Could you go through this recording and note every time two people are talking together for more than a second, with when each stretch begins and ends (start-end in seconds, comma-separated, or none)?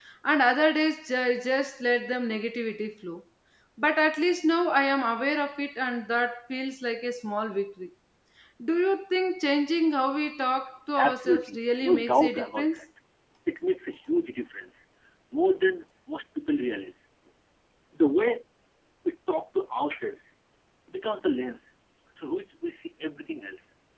11.0-12.8